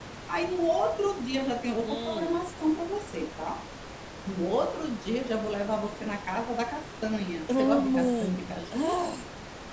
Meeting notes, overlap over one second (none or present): present